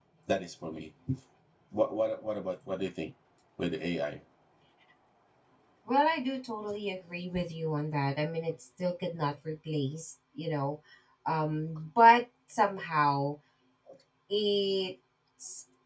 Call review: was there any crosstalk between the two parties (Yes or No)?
No